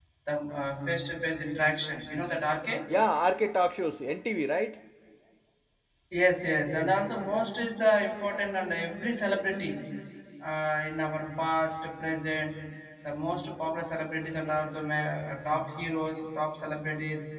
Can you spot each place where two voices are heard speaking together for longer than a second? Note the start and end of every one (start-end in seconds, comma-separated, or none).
none